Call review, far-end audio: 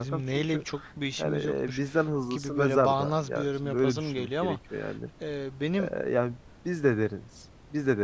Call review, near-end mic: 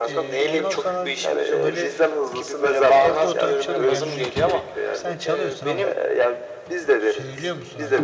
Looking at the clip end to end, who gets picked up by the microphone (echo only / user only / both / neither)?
both